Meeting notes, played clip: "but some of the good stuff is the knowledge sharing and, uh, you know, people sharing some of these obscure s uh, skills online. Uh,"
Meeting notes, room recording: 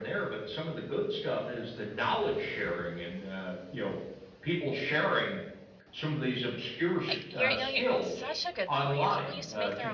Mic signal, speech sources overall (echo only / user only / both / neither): both